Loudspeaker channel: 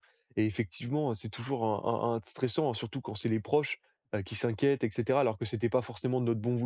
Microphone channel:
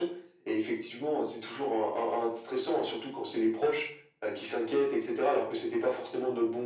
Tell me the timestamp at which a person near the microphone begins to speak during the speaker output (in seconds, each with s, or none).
none